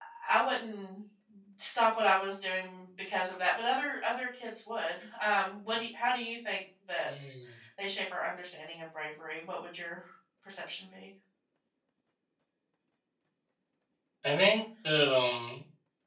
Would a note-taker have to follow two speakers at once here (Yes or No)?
No